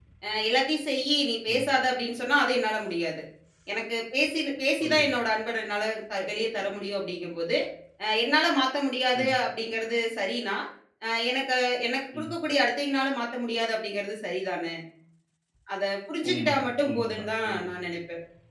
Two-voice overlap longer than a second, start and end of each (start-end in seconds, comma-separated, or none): 16.3-17.6